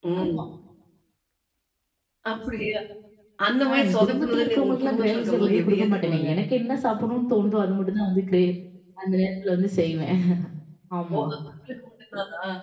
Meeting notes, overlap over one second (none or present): present